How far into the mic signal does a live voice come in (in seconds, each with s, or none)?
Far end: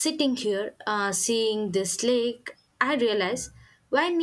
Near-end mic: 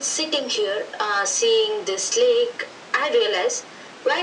none